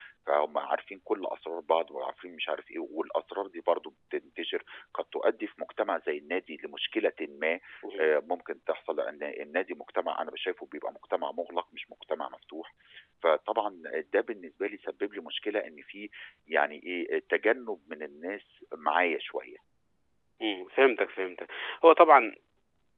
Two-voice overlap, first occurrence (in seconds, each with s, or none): none